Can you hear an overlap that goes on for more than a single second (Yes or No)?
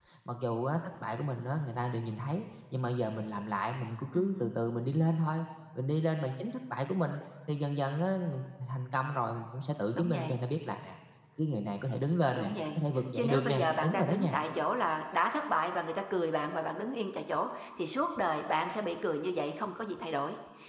Yes